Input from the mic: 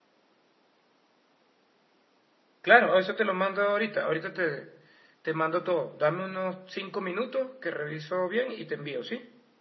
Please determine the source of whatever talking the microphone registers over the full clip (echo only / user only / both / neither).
user only